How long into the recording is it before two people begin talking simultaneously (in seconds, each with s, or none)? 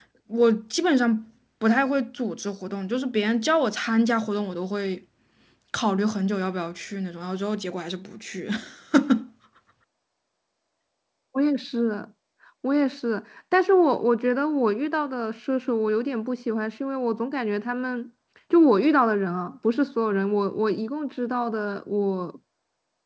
none